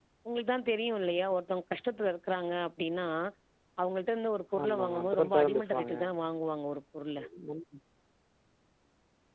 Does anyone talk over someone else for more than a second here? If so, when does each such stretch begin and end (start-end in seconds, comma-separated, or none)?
4.6-5.9